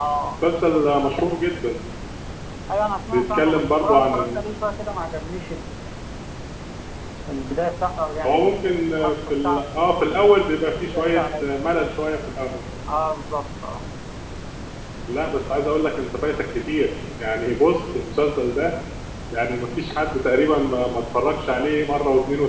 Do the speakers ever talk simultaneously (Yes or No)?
Yes